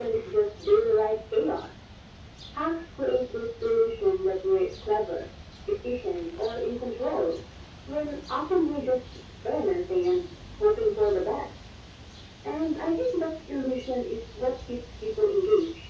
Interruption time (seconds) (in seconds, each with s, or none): none